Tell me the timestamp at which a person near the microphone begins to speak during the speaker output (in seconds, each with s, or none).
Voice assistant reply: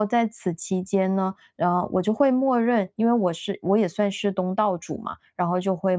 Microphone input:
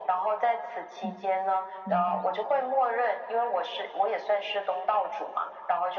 1.0 s